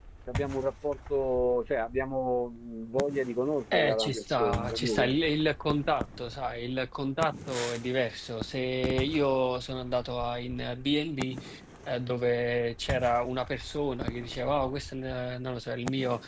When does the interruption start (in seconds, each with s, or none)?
3.7 s